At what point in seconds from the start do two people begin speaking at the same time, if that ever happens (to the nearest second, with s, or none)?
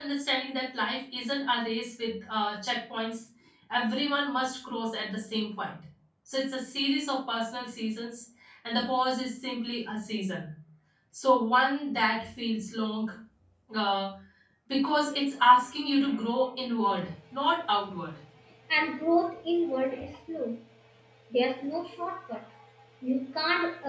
none